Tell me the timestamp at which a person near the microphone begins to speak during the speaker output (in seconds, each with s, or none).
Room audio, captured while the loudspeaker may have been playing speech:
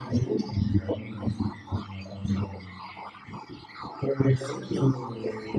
none